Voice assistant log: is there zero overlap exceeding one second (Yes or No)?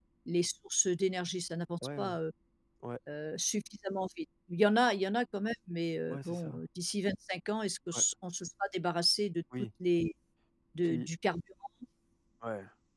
Yes